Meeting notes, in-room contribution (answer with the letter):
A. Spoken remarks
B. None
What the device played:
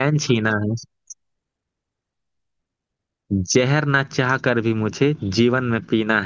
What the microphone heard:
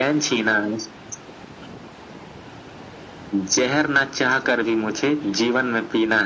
B